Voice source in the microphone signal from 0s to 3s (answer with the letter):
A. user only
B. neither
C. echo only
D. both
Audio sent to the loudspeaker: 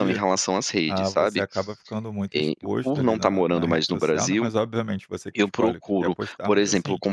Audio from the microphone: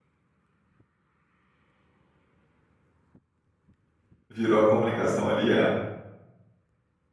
B